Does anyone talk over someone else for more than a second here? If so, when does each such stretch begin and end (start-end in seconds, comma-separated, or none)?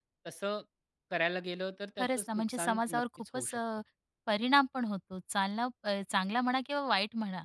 2.0-3.6